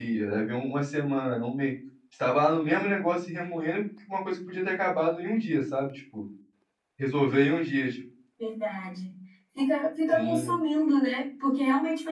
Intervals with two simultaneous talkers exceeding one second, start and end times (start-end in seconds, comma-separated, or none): none